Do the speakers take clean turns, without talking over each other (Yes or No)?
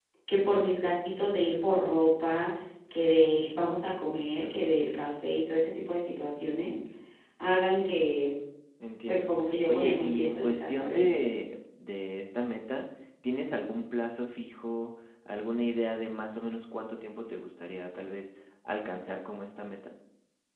No